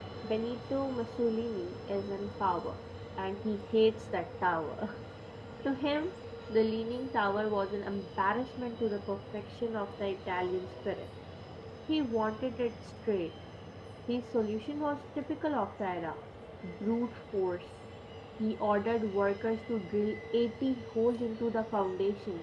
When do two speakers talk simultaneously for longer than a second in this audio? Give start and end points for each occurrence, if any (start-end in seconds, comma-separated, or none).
none